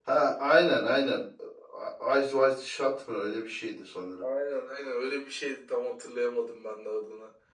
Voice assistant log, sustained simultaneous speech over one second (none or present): none